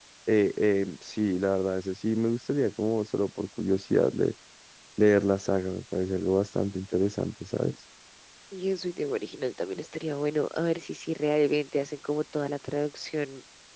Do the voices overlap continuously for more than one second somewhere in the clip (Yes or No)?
No